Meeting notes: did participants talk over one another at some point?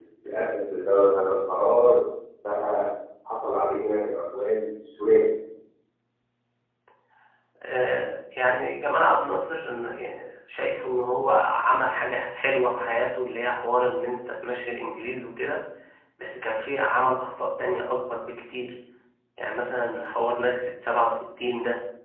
No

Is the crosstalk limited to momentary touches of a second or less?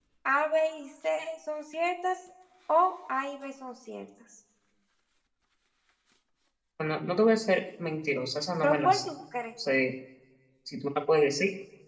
Yes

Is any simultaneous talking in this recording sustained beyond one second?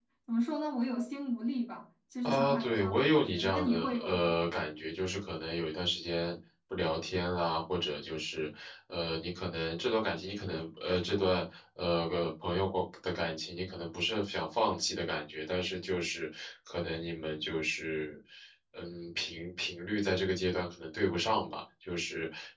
Yes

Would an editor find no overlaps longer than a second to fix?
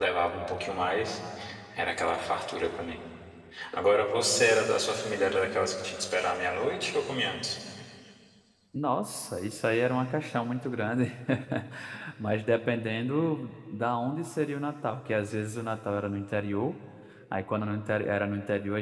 Yes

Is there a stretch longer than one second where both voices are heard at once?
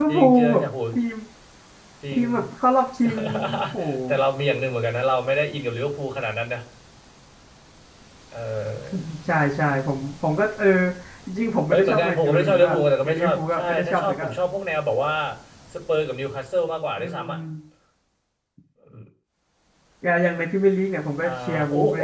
Yes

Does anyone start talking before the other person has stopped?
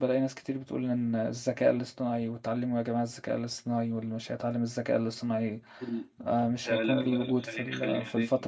Yes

